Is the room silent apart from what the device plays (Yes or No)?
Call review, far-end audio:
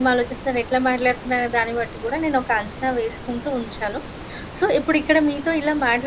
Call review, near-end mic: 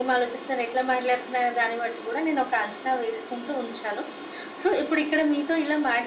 Yes